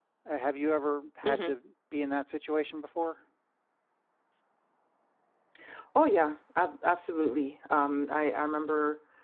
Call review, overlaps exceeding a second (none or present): none